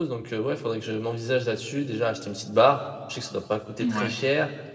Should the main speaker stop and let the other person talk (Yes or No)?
No